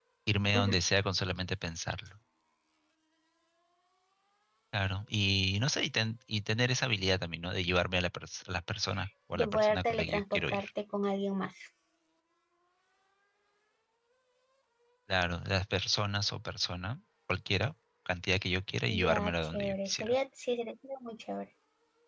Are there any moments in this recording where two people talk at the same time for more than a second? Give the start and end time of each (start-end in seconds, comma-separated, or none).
9.3-10.6, 18.9-20.2